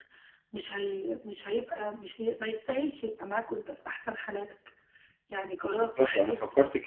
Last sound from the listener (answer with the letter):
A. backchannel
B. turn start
B